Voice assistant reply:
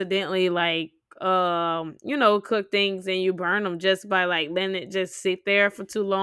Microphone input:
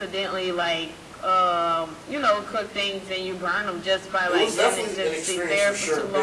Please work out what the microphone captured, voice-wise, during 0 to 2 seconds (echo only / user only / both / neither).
echo only